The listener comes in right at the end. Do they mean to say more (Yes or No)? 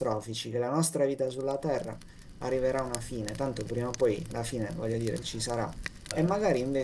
No